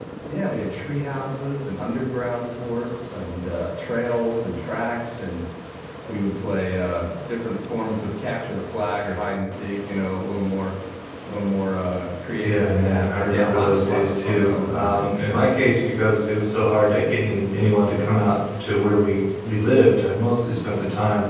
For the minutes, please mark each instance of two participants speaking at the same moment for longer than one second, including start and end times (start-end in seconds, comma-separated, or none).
12.4-15.4